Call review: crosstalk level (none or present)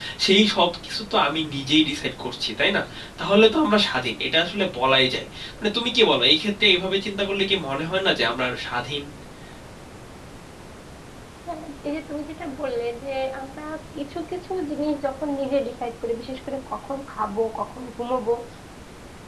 none